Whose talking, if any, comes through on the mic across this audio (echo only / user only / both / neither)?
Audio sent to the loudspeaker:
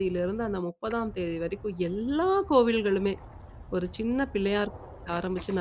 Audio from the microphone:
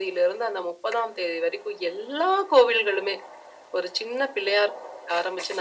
echo only